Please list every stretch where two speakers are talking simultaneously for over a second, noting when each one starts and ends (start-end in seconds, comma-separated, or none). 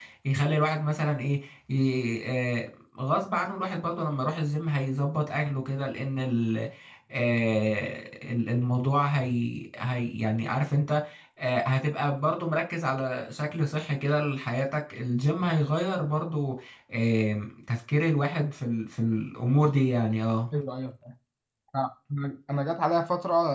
none